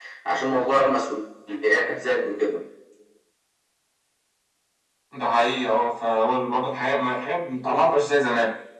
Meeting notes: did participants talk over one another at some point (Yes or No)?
No